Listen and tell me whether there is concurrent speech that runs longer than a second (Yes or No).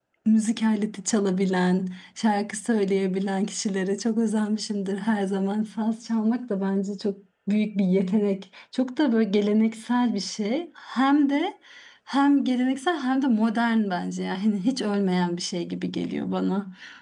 No